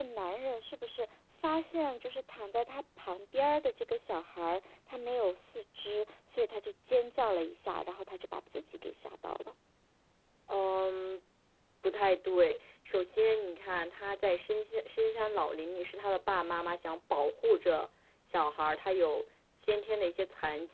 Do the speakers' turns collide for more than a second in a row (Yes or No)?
No